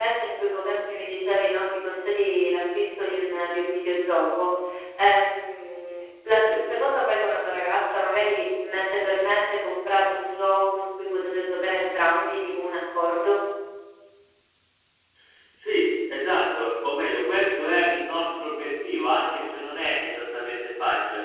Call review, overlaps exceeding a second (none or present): none